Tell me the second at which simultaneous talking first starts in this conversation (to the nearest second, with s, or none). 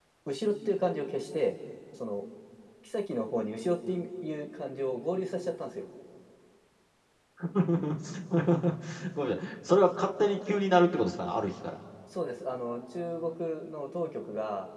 none